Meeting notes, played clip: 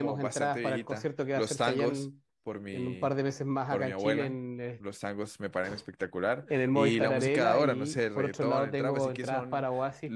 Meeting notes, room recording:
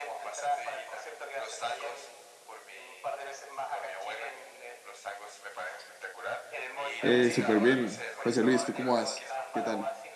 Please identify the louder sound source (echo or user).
user